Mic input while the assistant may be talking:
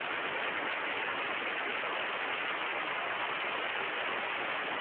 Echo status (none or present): none